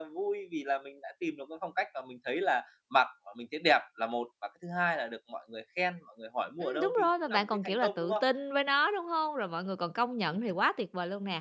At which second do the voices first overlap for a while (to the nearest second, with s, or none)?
7 s